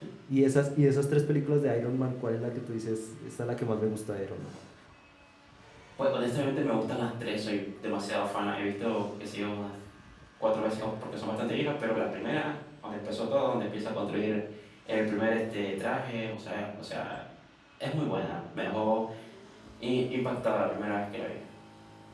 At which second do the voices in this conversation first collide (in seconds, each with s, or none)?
none